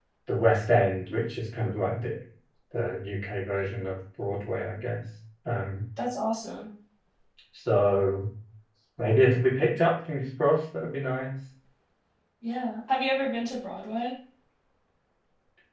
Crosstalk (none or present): none